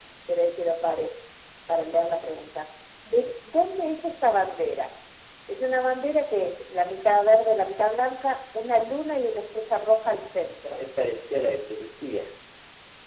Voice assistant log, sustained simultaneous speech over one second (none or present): none